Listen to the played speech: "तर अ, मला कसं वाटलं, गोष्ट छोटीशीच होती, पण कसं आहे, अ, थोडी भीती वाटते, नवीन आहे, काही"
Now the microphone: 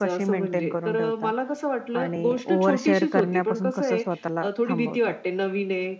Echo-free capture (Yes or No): No